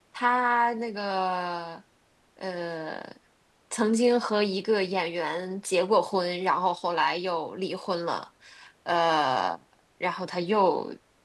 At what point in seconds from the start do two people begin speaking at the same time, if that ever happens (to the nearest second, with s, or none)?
none